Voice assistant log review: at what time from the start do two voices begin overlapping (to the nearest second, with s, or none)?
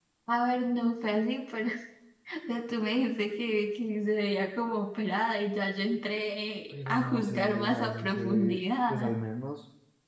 7 s